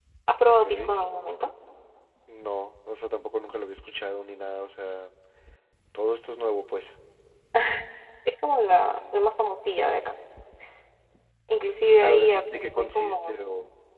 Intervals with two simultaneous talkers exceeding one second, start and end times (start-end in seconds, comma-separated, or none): 12.0-13.4